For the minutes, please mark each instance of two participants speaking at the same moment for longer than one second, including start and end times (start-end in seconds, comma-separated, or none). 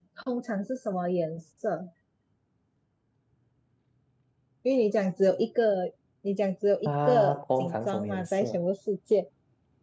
6.8-8.6